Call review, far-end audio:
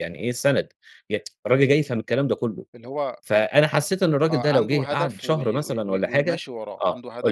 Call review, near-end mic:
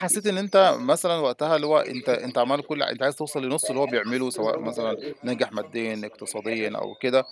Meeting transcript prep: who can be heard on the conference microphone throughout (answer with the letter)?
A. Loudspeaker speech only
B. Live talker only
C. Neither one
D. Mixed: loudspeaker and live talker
D